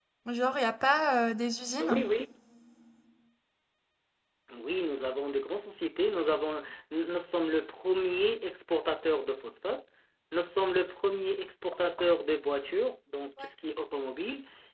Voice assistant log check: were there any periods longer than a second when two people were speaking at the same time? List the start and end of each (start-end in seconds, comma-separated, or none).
none